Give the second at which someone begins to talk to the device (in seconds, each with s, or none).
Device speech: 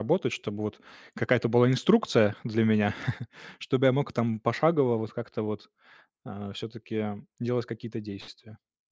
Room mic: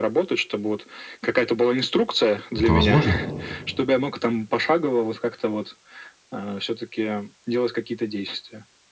2.5 s